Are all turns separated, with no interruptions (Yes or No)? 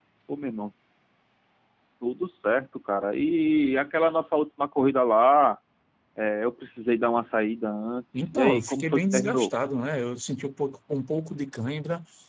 No